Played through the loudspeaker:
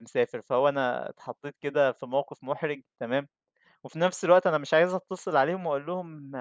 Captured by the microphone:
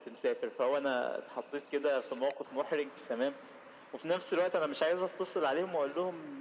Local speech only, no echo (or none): none